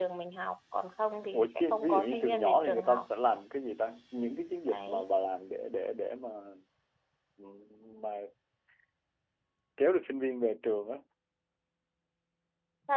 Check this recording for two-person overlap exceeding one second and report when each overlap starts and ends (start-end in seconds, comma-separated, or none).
1.3-3.0